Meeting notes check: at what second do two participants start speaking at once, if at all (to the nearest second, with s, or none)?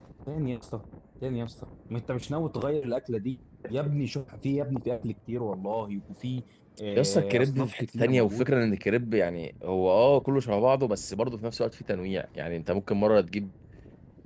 7 s